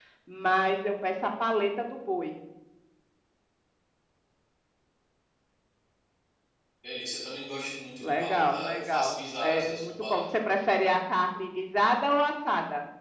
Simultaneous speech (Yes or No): Yes